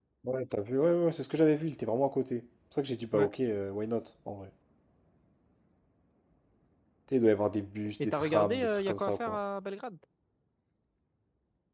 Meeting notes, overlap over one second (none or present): present